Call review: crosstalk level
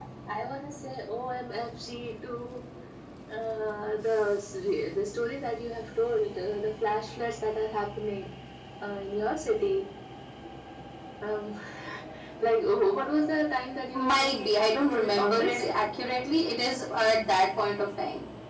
present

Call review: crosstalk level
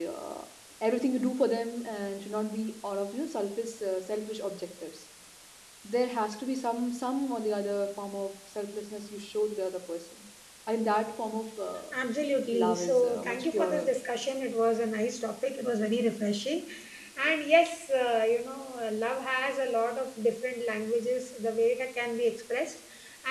present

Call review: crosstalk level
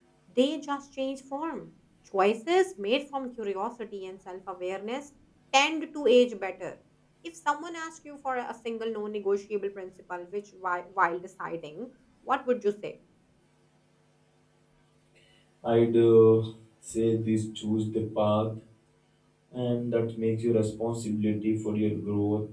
none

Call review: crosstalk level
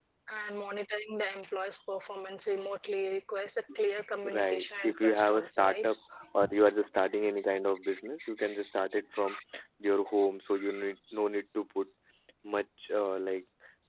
present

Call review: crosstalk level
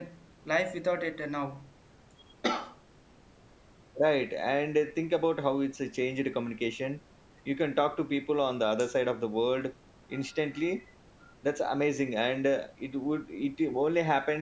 none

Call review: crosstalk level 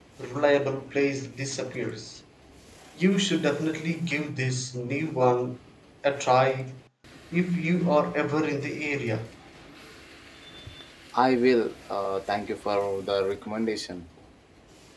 none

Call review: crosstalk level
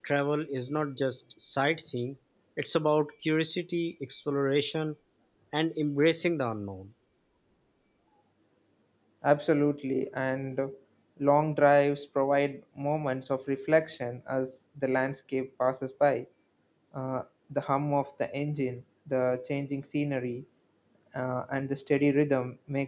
none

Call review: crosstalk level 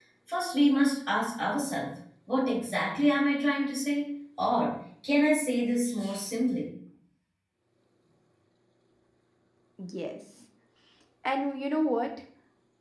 none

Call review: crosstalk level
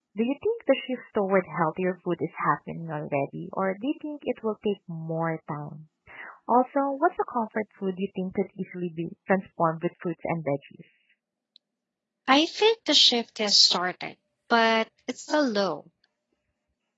none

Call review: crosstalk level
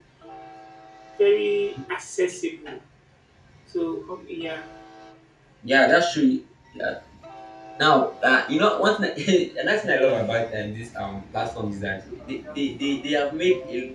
none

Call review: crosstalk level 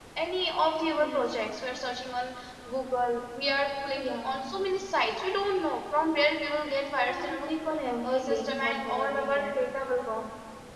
present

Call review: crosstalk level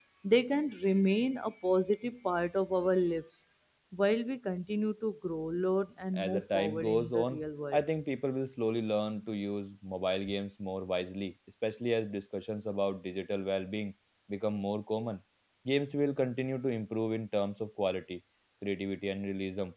present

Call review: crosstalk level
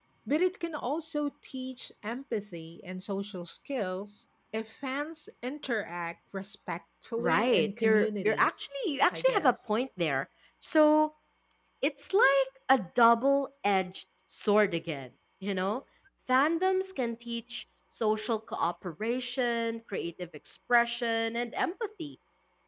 present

